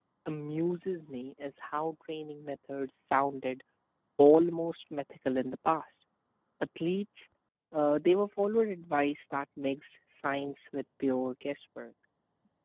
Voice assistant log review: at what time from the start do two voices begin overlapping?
none

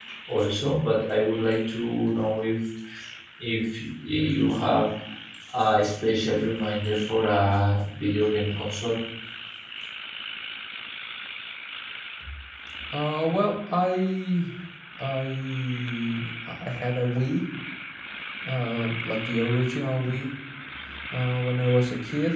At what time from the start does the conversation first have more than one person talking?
none

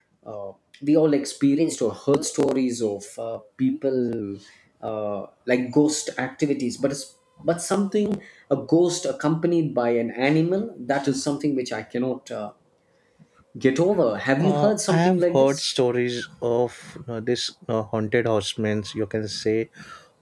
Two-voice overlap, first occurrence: 14.4 s

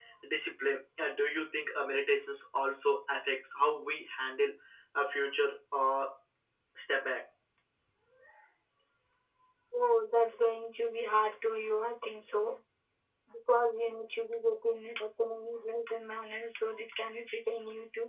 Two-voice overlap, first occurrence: none

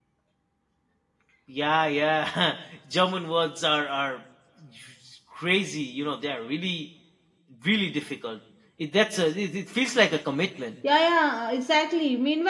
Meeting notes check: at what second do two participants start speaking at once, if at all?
none

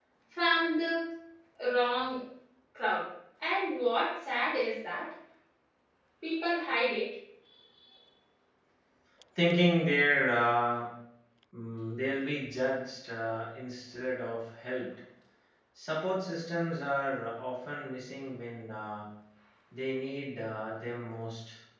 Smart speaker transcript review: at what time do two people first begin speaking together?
none

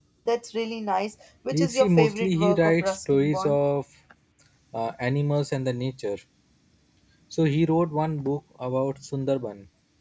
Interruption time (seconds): 1.5 s

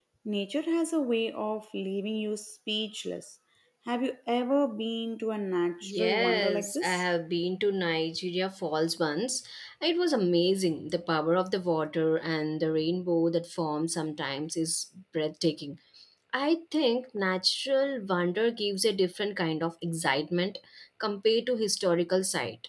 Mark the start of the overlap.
5.8 s

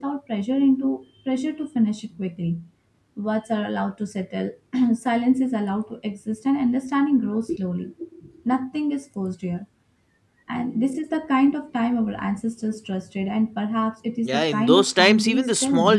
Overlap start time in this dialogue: 14.2 s

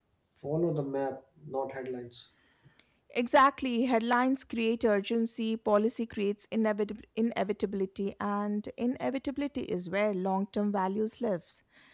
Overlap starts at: none

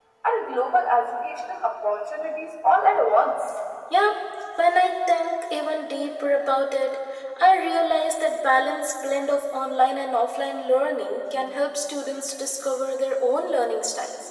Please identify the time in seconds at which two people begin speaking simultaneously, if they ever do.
none

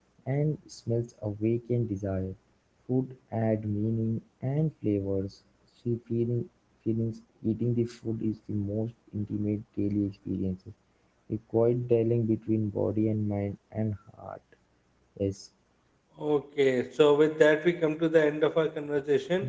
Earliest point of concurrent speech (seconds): none

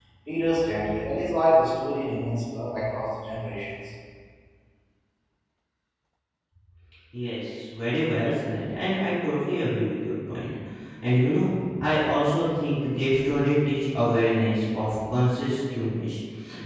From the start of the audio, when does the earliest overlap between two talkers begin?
none

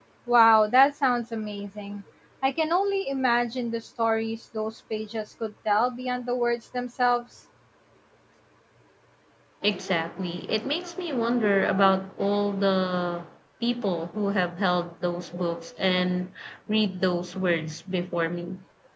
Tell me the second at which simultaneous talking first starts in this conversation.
none

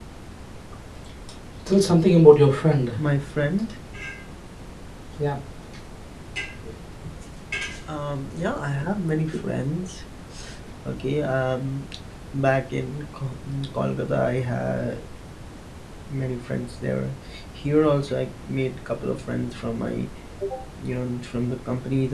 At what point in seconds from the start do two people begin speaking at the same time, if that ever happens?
none

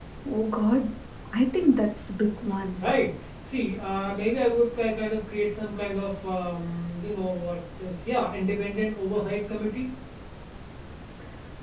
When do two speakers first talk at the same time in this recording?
none

